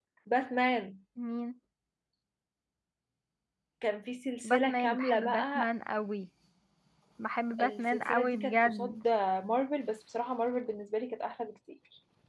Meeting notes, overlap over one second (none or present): present